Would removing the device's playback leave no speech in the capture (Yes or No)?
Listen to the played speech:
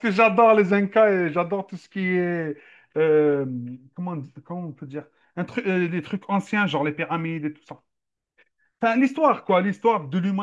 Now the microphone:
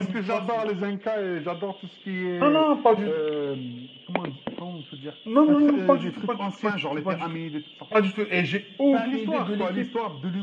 No